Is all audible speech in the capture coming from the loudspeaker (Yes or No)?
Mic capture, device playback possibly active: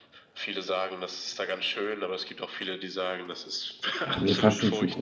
No